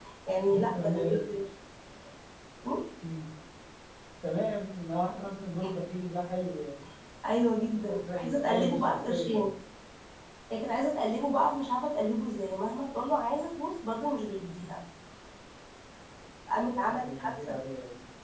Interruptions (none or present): present